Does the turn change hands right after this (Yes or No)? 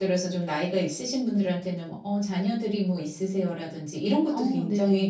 No